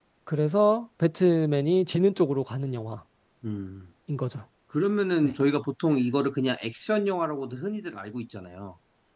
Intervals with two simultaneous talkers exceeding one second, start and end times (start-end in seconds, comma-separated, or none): none